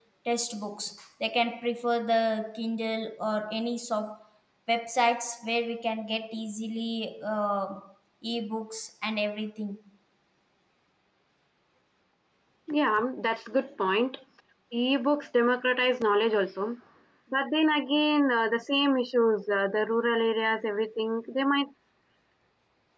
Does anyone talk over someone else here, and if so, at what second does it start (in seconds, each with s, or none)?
none